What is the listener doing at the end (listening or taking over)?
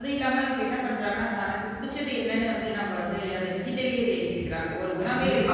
listening